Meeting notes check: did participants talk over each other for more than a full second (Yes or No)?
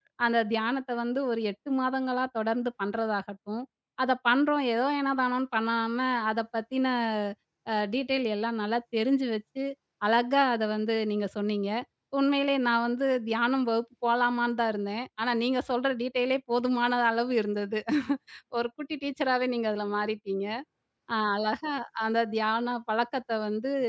No